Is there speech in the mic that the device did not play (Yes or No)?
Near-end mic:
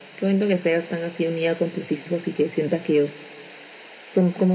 No